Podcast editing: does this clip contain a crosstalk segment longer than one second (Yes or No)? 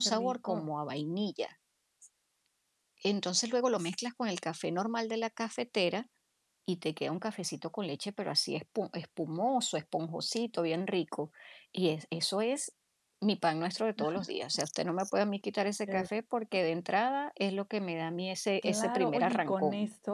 Yes